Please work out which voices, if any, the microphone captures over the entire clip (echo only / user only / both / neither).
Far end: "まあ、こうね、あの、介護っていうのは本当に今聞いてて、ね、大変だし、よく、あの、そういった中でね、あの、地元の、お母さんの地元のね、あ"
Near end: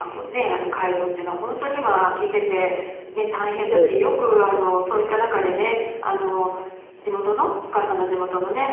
both